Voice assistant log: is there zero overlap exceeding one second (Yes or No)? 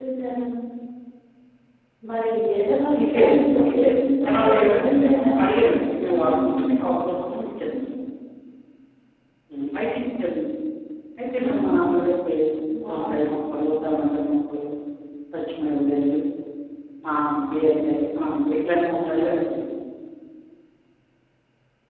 No